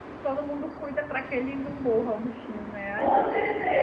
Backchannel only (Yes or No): No